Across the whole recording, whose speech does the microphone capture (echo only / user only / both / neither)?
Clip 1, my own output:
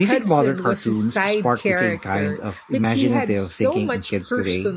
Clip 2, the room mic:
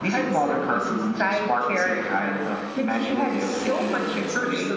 echo only